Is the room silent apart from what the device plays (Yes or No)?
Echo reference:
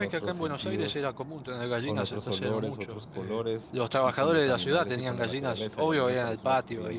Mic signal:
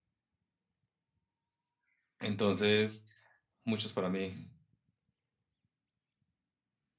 No